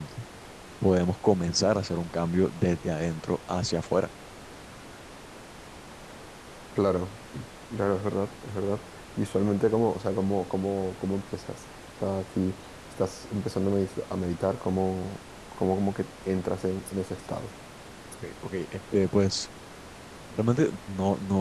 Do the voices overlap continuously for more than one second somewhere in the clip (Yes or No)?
No